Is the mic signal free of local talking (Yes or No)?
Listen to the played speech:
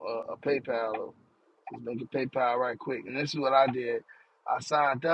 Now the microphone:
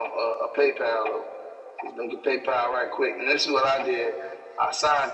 Yes